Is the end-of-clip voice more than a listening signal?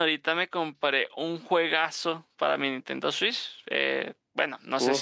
No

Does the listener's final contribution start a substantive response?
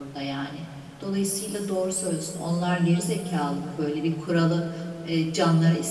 No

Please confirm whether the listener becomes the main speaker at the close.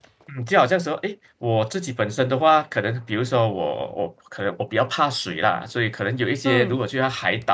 No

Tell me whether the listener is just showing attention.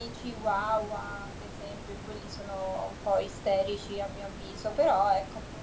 Yes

